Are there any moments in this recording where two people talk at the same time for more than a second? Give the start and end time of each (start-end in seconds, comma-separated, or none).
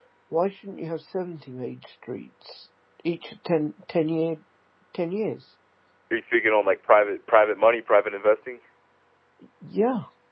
none